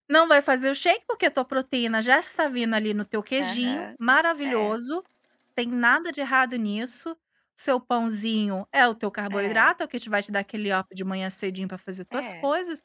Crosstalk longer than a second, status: none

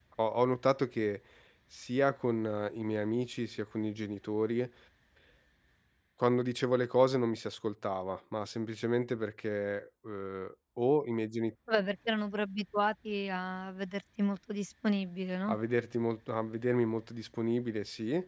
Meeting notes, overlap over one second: none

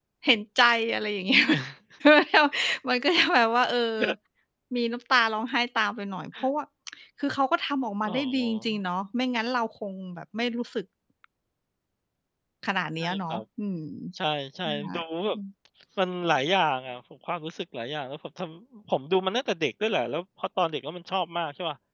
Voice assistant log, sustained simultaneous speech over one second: none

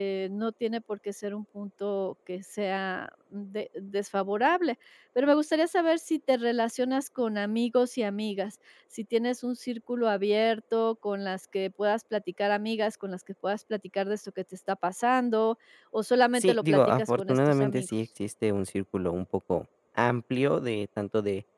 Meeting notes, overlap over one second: present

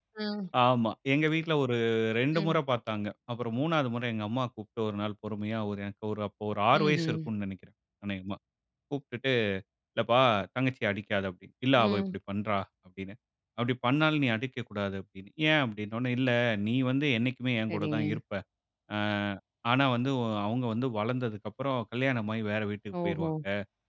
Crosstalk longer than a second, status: none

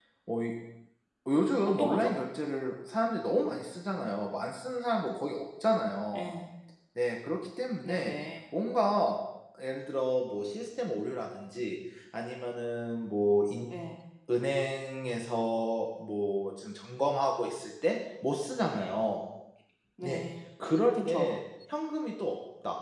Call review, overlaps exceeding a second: none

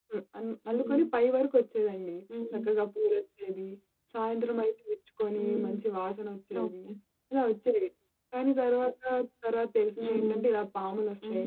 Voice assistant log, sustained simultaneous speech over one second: none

